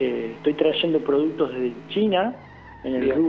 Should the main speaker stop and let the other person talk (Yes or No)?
No